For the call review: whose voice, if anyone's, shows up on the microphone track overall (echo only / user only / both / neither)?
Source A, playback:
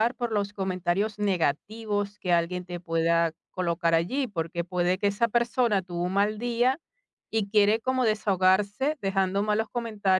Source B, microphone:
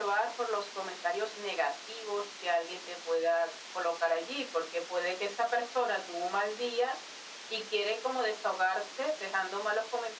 echo only